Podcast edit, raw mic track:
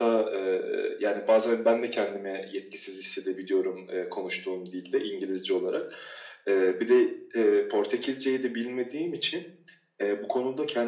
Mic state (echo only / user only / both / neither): echo only